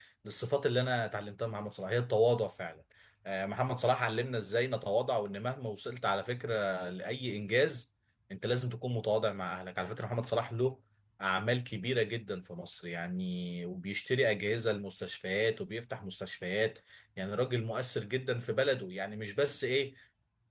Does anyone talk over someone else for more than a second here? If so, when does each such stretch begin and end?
none

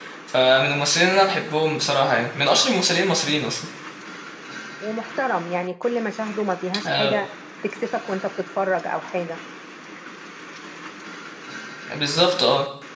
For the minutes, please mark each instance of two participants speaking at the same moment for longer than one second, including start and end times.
none

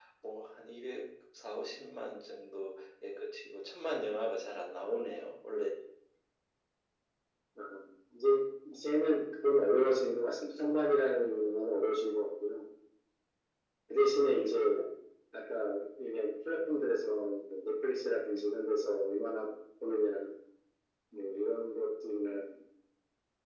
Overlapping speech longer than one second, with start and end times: none

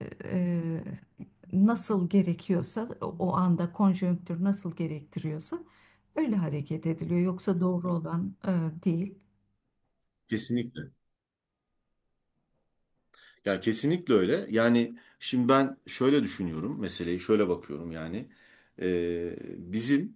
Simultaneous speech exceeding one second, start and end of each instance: none

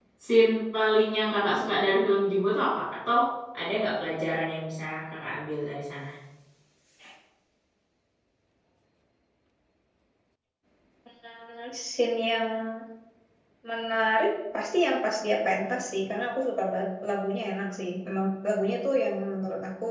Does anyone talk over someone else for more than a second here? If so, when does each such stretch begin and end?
none

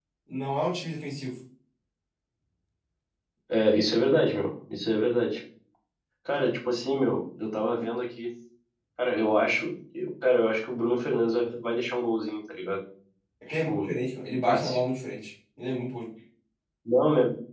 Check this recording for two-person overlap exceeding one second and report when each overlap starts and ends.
none

